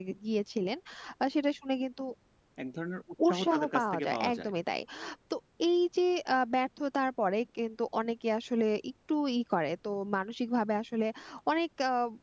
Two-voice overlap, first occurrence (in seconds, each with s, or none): 3.3 s